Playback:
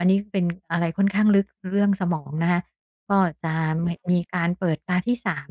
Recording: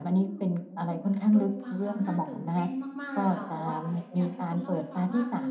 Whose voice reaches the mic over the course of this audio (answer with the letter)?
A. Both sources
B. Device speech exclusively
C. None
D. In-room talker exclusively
A